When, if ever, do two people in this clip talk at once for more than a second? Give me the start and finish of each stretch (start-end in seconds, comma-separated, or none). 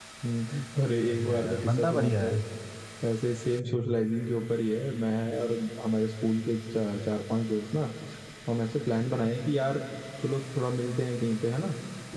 1.0-2.3